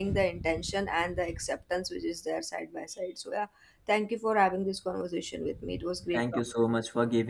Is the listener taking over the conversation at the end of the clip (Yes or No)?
Yes